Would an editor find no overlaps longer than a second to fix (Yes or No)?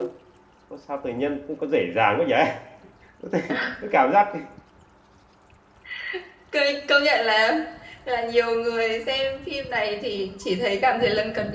Yes